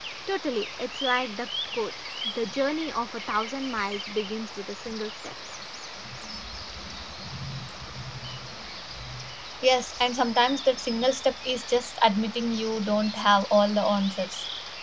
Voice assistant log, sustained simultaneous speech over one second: none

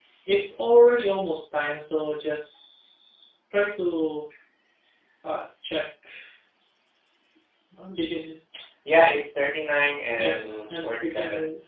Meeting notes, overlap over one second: present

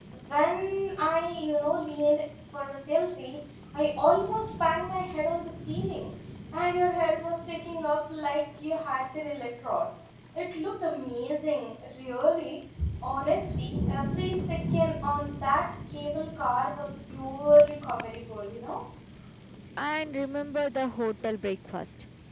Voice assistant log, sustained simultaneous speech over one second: none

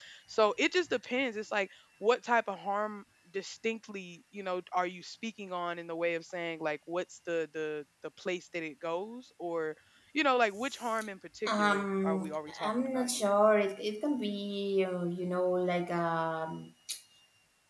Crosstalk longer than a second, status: present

